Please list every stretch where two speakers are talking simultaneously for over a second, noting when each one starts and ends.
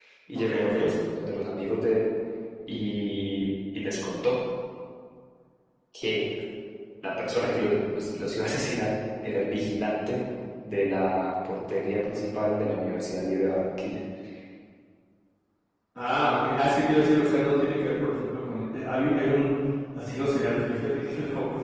none

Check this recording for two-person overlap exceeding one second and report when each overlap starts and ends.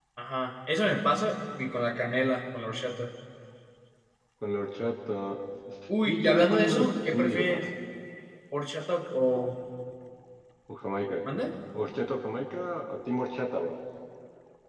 6.0-7.6

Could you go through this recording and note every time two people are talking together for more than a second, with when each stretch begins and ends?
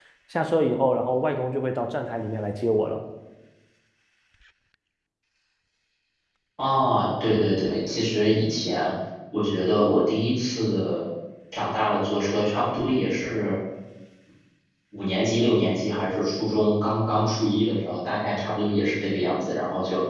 none

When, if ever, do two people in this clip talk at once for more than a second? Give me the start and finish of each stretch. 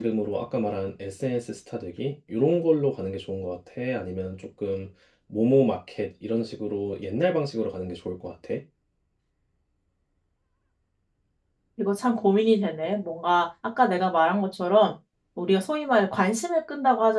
none

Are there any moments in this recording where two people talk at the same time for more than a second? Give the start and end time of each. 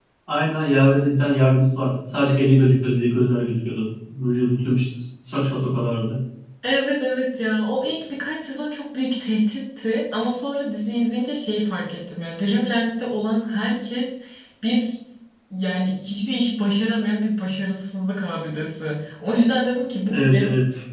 none

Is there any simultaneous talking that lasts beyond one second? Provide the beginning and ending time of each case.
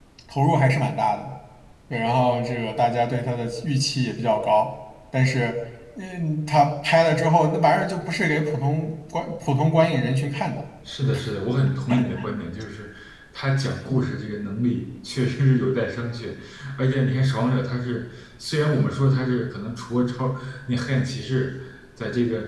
none

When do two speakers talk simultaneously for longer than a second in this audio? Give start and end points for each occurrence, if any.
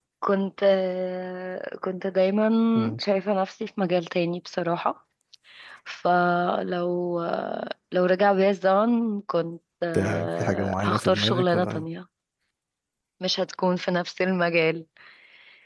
9.9-11.8

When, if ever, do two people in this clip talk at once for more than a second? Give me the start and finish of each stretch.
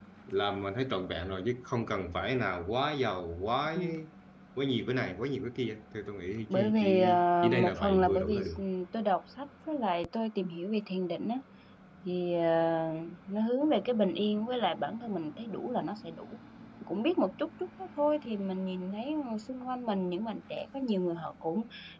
6.5-8.6

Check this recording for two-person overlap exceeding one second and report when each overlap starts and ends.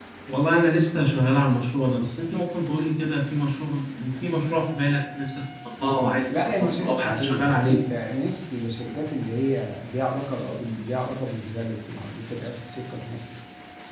6.3-7.8

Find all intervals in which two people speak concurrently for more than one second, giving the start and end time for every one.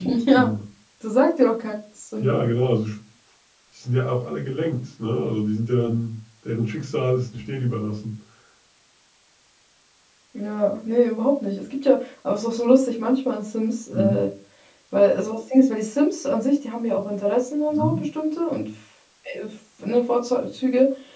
none

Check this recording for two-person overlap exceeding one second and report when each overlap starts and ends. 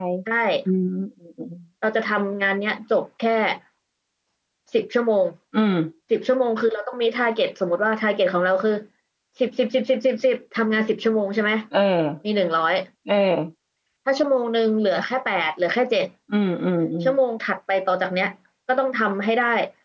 none

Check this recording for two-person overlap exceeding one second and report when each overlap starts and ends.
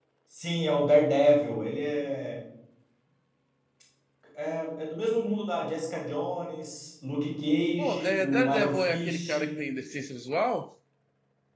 7.8-9.4

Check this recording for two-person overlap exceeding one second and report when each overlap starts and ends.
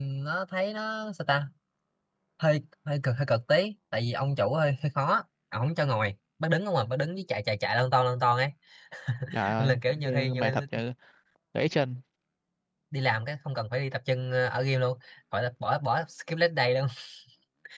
9.6-10.8

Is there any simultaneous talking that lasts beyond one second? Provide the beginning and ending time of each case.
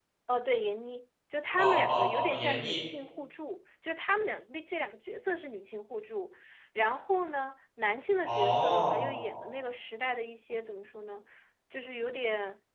1.6-2.8, 8.2-9.5

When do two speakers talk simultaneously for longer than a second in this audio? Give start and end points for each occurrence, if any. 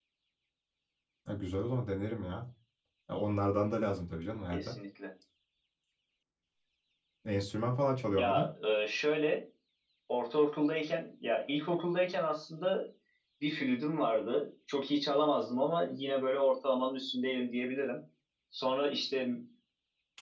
none

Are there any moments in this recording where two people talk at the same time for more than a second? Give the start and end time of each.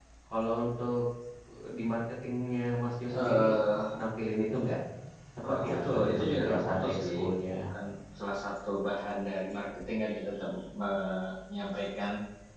5.5-7.2

